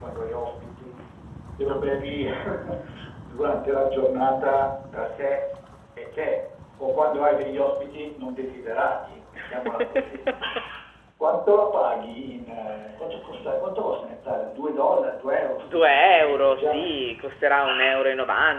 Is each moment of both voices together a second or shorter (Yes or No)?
No